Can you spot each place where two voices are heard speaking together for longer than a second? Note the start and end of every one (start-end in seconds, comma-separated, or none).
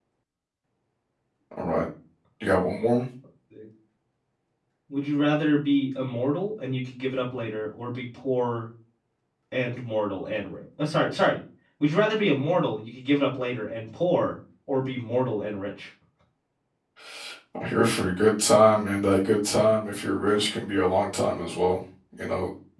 none